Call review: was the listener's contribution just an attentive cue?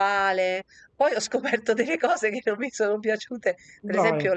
Yes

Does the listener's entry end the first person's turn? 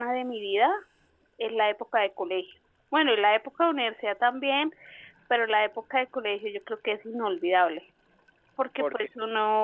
No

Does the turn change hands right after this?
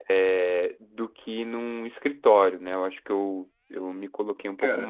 Yes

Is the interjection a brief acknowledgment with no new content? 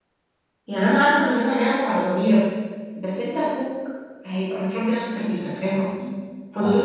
Yes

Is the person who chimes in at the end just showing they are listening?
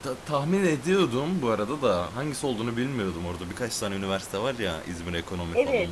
No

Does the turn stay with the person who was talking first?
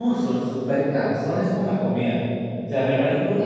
Yes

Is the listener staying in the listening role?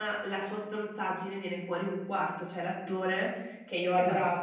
Yes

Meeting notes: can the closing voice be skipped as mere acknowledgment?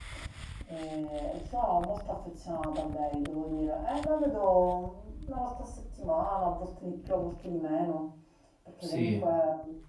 Yes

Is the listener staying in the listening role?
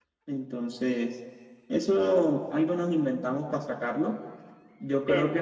Yes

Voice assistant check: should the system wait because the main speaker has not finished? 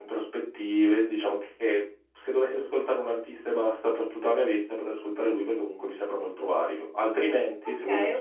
No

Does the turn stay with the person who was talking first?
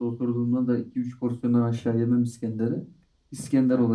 Yes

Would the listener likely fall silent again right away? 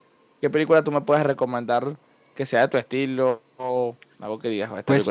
No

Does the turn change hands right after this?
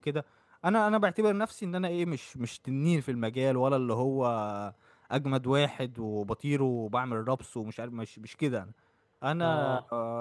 No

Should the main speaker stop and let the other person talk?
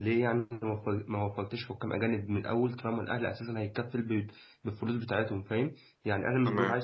No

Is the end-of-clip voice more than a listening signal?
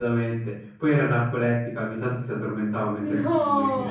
Yes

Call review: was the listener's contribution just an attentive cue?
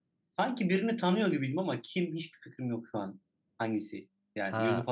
No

